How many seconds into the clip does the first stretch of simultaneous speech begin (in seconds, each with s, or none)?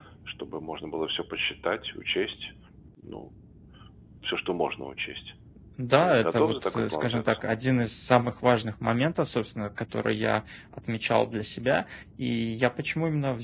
6.0 s